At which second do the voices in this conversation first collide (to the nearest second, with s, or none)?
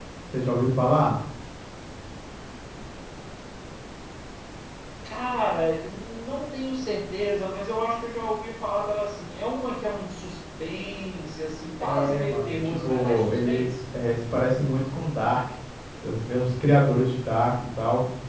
12 s